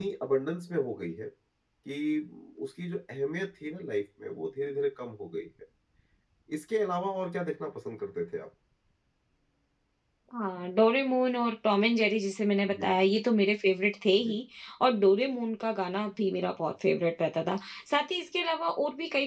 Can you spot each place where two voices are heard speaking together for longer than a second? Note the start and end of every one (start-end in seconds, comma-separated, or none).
none